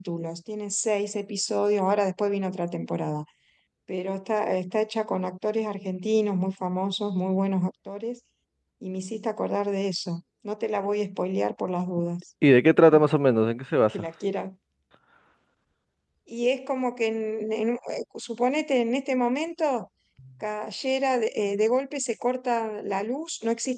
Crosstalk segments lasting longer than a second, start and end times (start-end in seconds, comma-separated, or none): none